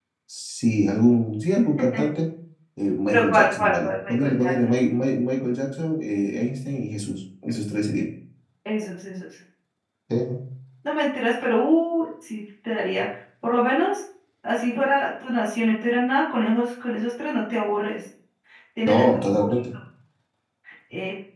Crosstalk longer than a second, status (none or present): present